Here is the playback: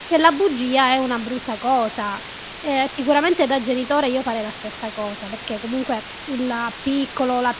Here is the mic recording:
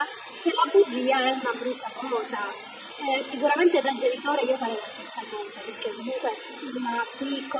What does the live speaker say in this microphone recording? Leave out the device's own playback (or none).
none